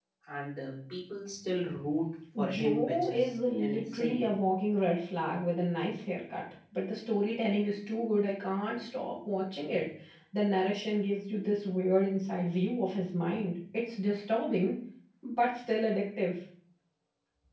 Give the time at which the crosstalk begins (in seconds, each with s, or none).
2.4 s